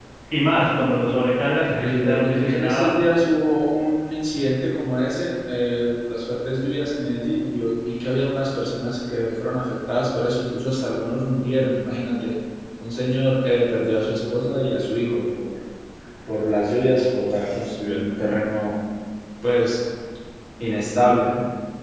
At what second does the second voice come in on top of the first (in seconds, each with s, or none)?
1.7 s